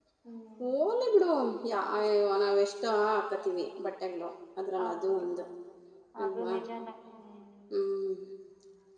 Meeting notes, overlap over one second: none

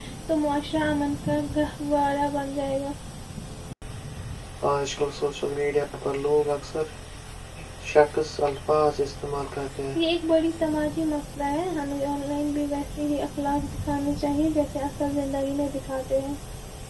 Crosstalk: none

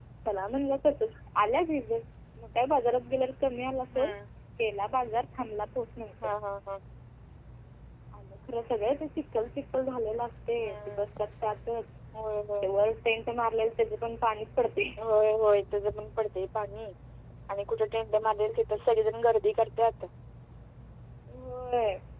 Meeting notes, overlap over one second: none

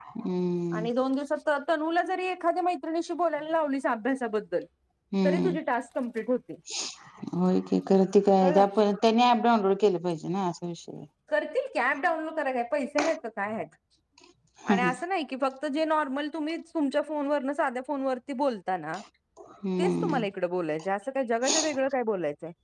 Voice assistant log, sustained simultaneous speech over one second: none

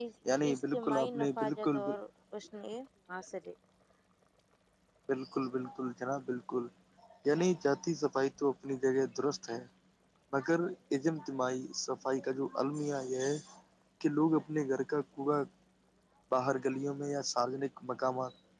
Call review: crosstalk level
present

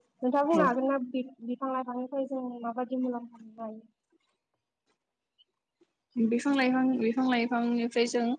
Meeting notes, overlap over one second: none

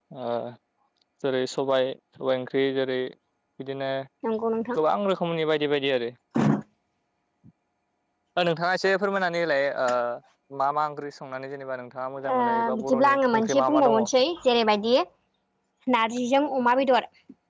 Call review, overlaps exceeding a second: present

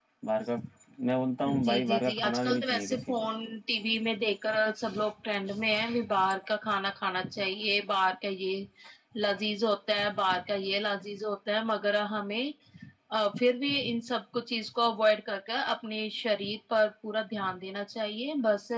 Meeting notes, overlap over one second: present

